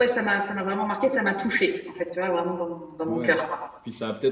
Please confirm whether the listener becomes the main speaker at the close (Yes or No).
Yes